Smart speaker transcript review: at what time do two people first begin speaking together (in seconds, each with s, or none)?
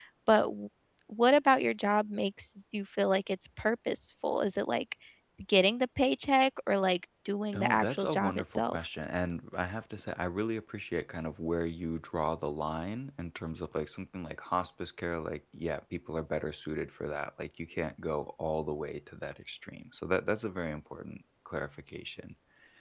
7.5 s